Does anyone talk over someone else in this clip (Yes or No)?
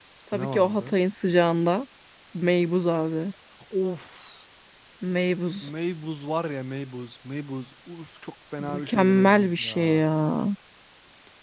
Yes